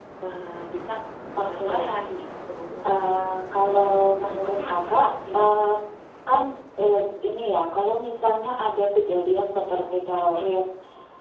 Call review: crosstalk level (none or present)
present